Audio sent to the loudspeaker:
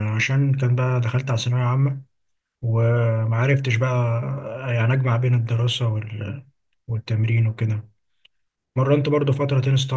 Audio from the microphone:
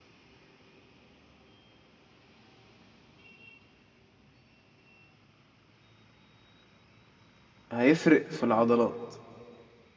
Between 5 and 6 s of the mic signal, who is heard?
neither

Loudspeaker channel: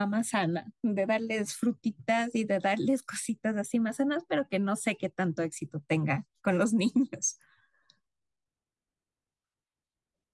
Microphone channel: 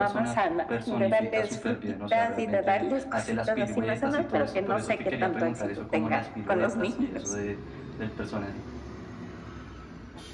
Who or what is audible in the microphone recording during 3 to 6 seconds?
both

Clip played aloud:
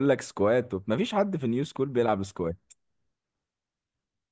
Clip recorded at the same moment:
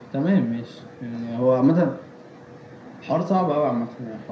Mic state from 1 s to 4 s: user only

